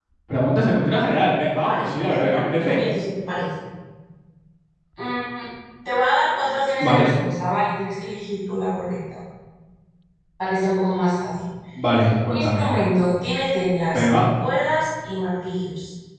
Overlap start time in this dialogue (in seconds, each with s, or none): 1.6 s